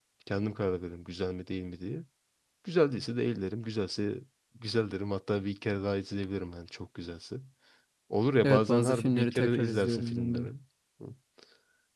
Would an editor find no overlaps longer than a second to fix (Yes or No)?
No